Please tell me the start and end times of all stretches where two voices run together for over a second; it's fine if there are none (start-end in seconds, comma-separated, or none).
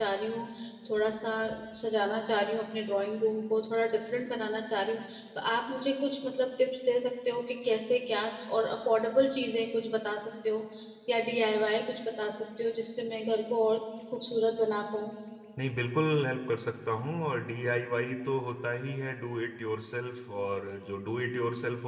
none